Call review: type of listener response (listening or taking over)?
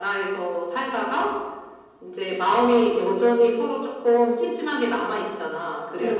listening